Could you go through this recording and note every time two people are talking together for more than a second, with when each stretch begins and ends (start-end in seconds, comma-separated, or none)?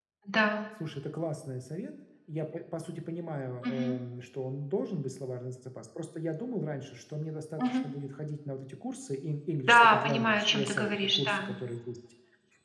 9.7-11.4